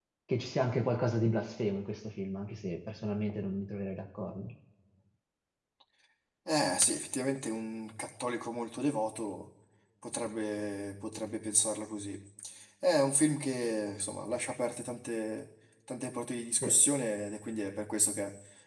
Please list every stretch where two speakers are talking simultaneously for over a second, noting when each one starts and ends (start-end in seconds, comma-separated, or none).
none